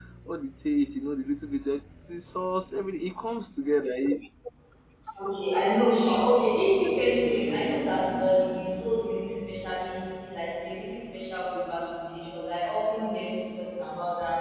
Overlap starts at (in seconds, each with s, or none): none